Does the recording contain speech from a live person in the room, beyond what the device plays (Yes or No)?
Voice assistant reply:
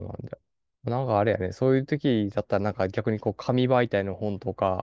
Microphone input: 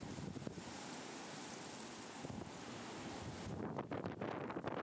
No